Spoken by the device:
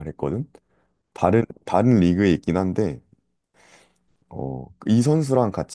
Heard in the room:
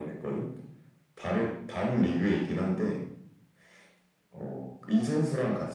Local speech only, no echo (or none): none